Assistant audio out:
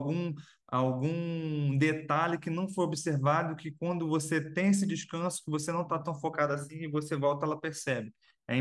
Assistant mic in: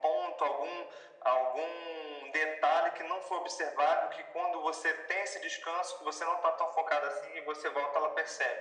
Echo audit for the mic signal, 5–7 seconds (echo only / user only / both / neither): echo only